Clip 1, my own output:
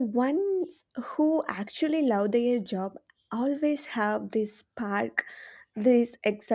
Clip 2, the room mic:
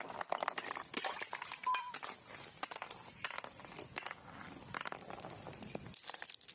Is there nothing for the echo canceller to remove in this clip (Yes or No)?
Yes